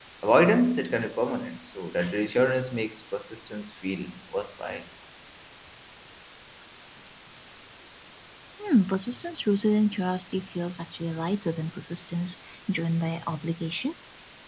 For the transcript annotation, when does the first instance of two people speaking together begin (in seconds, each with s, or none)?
none